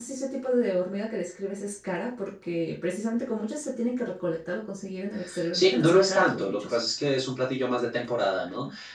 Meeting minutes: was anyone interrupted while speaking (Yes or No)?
Yes